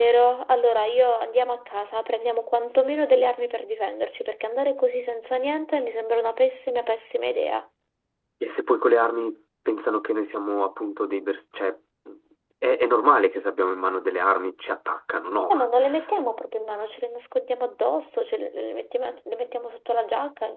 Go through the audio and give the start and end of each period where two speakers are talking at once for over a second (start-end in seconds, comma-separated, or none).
none